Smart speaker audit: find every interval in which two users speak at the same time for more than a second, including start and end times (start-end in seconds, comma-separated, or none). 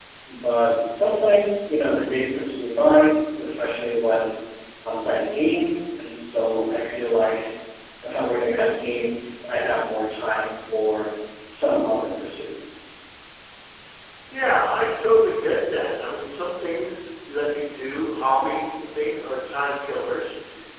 none